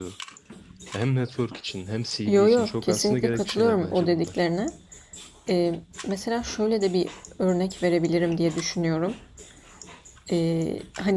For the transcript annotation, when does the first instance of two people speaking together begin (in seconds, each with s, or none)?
2.2 s